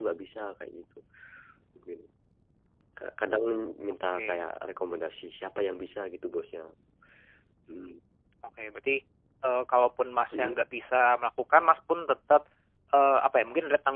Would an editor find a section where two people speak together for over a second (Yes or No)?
No